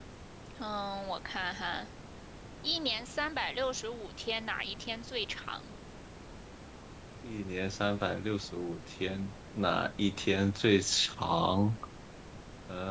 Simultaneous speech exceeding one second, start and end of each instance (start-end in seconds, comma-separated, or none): none